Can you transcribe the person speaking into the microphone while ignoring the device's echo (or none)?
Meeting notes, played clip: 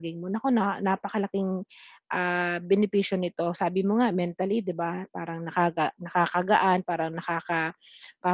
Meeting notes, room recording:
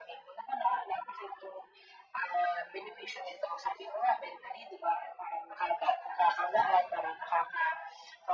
none